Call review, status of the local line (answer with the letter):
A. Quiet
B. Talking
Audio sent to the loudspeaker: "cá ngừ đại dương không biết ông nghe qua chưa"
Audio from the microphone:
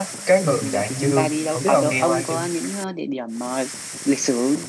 B